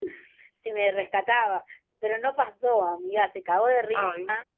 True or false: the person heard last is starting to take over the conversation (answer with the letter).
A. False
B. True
A